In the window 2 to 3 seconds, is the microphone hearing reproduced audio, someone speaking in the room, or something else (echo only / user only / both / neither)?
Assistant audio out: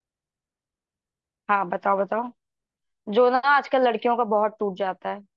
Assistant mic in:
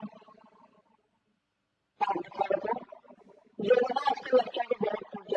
echo only